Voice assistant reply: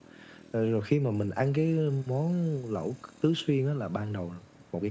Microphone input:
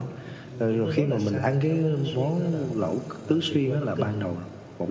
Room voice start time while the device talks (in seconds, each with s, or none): 0.5 s